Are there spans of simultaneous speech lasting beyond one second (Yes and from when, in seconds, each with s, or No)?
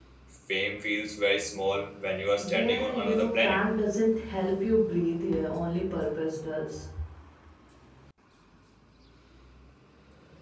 Yes, from 2.4 s